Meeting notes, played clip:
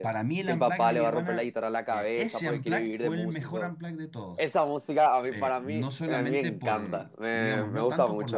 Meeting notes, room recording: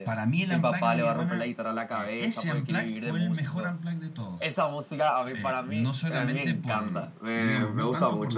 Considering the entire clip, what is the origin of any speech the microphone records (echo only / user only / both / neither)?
echo only